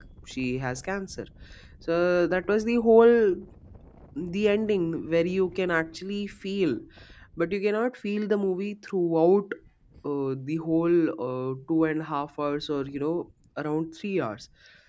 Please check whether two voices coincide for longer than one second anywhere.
No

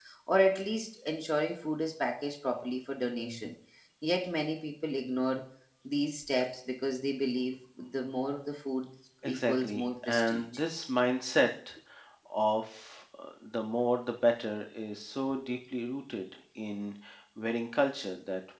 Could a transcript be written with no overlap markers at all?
No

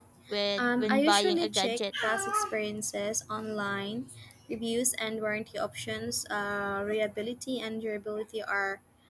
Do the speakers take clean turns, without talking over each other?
No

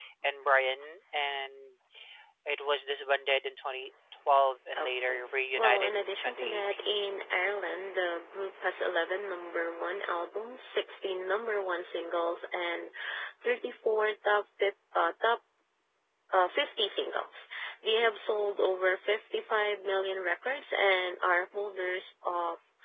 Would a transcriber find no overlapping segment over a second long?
No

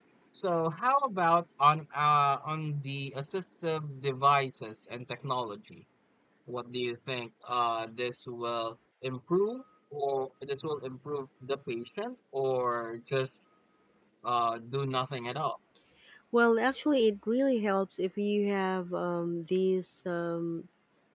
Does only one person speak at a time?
Yes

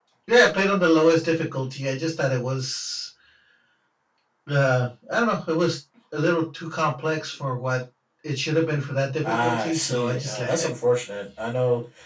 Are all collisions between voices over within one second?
No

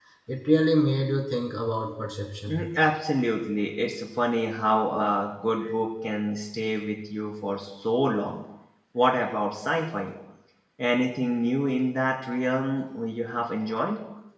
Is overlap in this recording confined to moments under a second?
Yes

